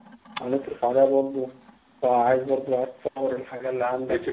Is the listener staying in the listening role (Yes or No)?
No